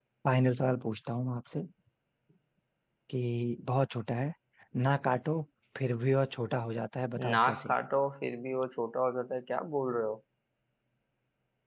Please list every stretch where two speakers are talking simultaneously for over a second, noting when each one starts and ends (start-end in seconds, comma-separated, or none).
none